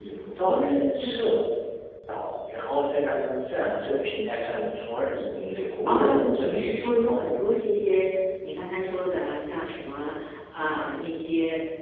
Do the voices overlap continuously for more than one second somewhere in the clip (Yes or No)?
Yes